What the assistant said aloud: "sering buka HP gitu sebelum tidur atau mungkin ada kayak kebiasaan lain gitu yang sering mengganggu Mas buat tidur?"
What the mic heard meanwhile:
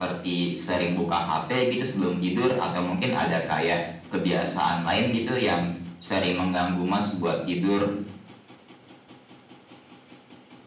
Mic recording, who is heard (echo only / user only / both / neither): echo only